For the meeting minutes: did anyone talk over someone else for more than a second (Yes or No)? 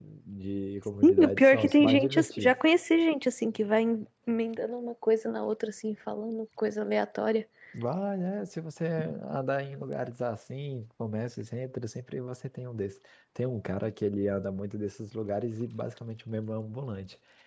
Yes